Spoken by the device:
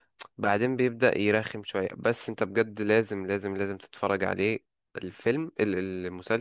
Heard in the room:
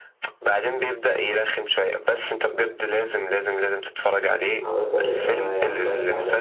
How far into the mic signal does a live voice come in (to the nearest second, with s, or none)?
5 s